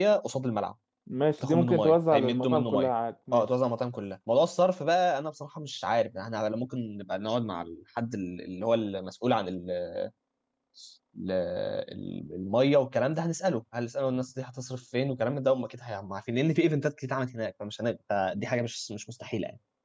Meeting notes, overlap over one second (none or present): present